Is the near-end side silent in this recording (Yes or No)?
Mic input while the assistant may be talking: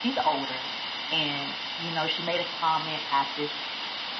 Yes